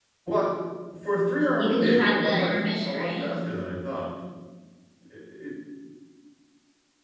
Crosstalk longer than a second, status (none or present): present